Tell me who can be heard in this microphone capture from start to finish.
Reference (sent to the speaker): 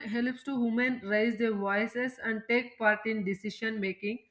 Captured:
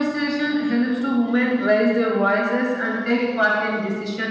echo only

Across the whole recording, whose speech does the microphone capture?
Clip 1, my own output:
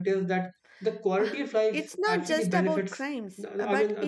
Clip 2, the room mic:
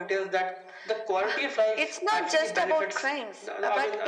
echo only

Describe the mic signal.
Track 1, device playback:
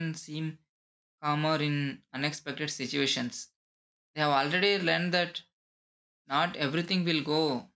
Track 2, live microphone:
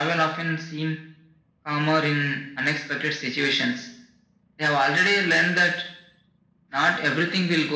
echo only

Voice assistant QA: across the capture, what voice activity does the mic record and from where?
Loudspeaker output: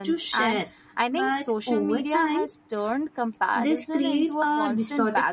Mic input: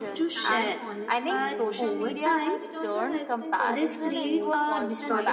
both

